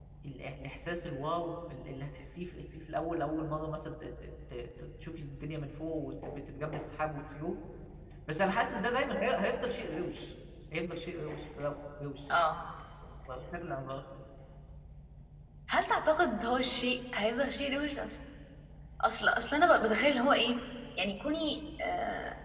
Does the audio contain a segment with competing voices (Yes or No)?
No